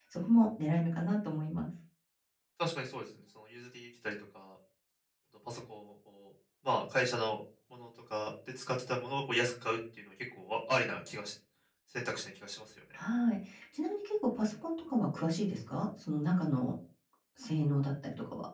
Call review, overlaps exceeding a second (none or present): none